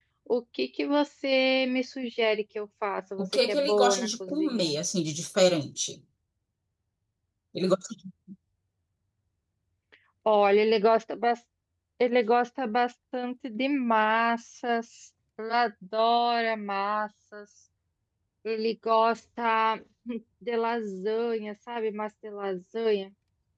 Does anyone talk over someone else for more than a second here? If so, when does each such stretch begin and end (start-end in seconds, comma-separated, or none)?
3.2-4.8